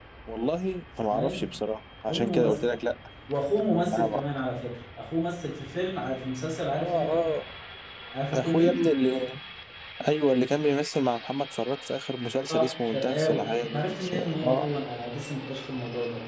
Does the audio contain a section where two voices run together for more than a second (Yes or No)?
Yes